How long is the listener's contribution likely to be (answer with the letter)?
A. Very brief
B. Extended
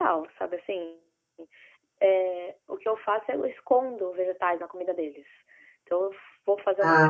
A